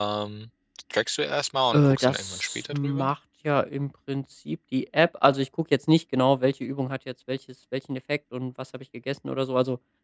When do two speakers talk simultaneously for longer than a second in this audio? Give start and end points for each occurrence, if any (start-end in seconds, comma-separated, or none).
1.7-3.1